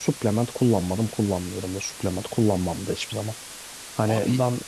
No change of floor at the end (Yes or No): Yes